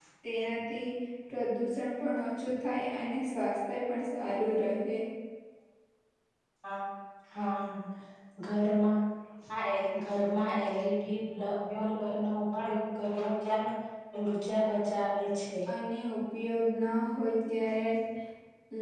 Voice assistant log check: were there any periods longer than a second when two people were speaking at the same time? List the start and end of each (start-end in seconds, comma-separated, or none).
none